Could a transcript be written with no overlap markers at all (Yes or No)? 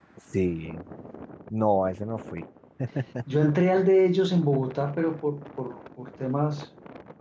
Yes